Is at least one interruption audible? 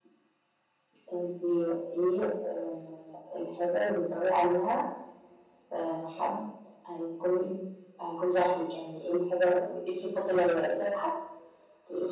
No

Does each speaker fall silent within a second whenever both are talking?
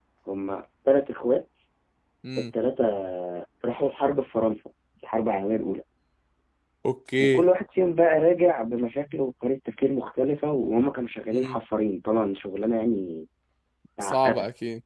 Yes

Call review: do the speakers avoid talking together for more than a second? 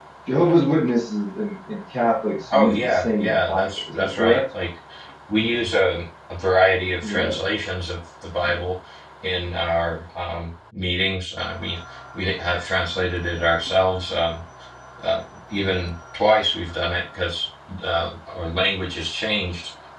No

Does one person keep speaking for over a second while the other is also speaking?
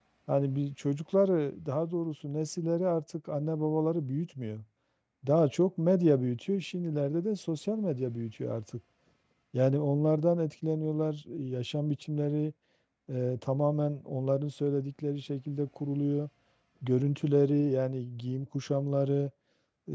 No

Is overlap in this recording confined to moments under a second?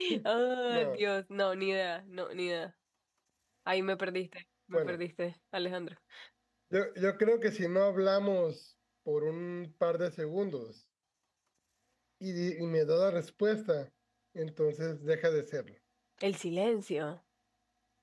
Yes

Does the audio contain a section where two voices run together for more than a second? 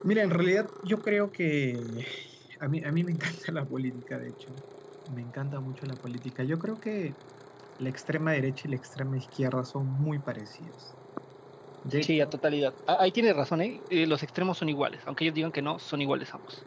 No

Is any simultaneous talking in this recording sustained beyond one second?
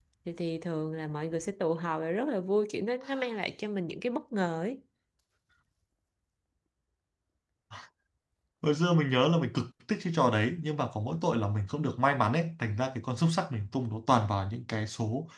No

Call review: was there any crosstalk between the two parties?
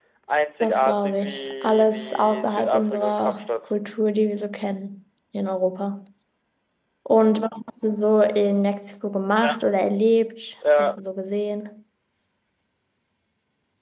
Yes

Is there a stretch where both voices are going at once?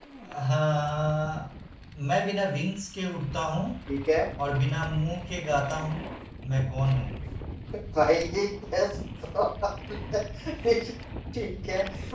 No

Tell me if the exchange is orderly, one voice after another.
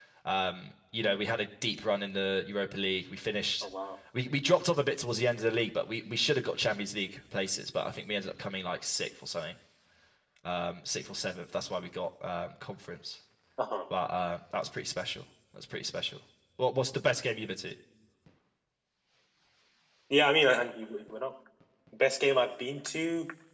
Yes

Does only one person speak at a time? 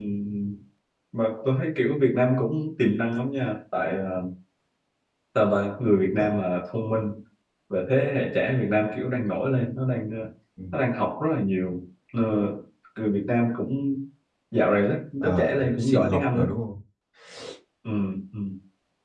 No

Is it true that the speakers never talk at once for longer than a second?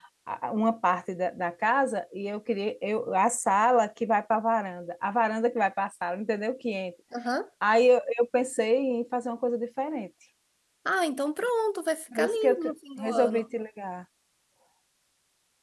No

